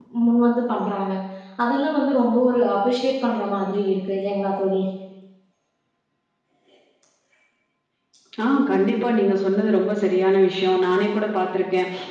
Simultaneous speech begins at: none

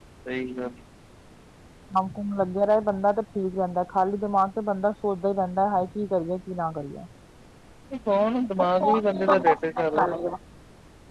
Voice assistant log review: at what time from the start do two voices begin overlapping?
8.6 s

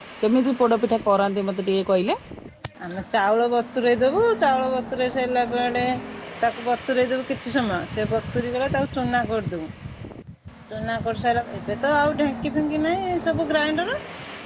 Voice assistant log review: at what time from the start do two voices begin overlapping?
none

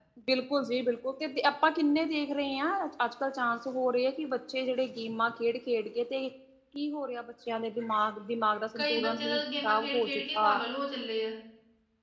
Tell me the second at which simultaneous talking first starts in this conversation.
8.8 s

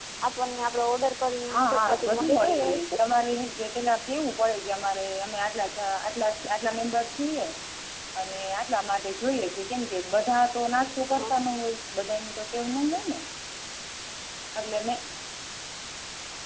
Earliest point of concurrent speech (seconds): 1.5 s

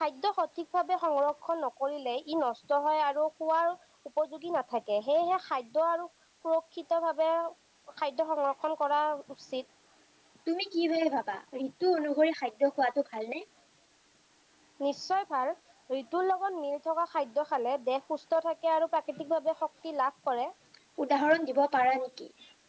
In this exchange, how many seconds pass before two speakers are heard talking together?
none

